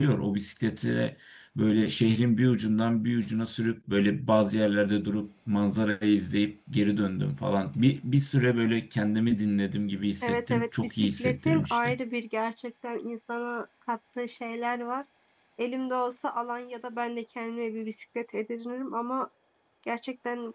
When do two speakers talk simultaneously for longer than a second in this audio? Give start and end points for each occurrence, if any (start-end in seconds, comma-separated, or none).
10.2-12.0